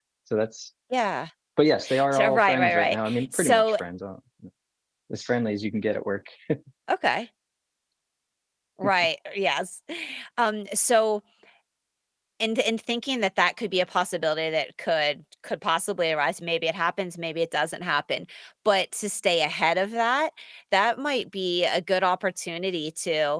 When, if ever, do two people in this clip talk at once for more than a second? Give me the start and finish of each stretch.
2.1-3.8

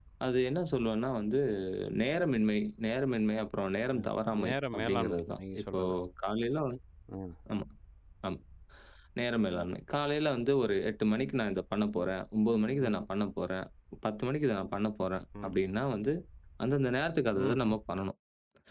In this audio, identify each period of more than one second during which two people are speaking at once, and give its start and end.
4.4-5.8

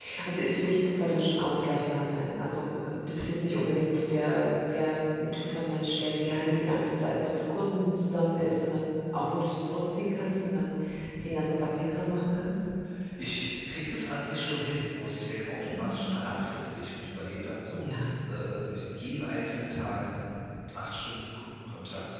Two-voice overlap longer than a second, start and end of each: none

